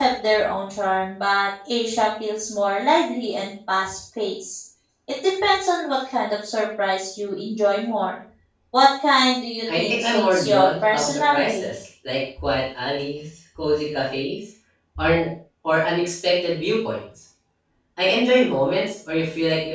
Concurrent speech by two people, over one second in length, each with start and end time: 9.8-11.7

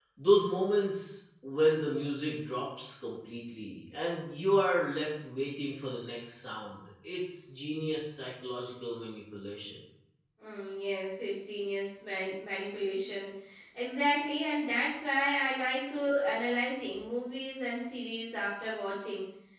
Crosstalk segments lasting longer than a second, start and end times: none

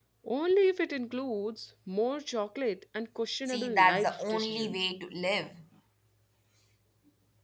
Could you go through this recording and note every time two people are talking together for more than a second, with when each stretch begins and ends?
3.5-4.9

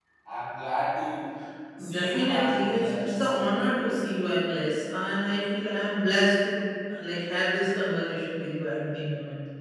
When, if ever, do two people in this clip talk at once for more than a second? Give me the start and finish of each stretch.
1.9-3.8

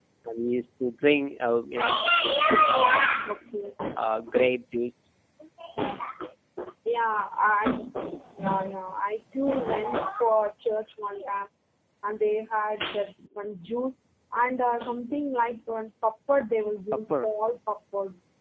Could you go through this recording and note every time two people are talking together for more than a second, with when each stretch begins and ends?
1.8-3.3

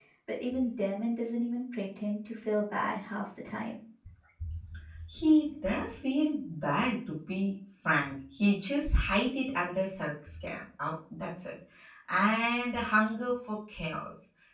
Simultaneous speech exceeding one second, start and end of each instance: none

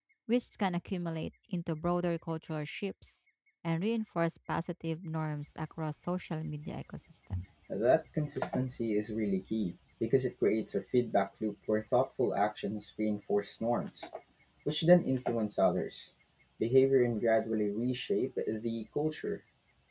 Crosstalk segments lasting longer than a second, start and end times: none

